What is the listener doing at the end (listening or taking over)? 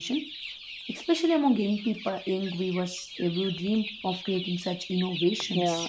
taking over